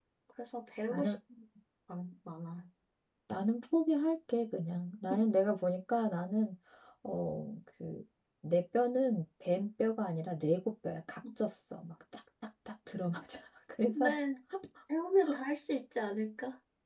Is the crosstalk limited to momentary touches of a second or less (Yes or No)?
Yes